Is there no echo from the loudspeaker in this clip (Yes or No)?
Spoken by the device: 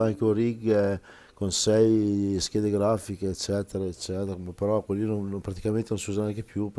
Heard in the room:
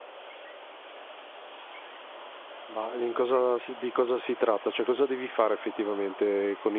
Yes